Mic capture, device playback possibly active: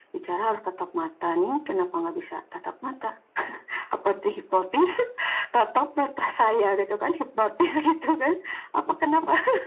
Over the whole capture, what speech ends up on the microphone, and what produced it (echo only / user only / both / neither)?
echo only